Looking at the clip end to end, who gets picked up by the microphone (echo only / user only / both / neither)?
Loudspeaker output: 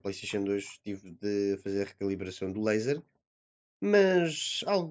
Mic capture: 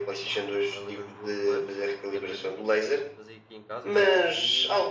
both